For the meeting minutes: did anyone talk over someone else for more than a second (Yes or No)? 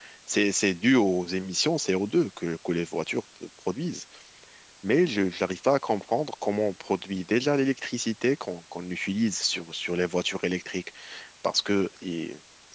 No